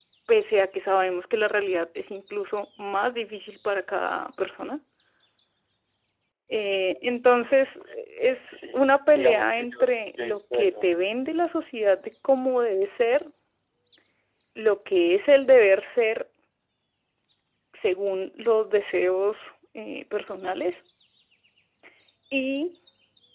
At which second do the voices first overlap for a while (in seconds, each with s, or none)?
8.4 s